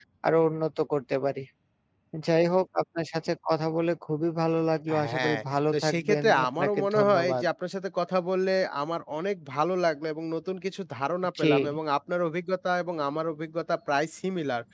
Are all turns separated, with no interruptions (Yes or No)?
No